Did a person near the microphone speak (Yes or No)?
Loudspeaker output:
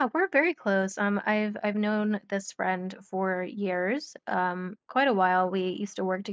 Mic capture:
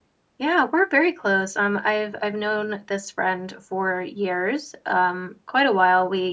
No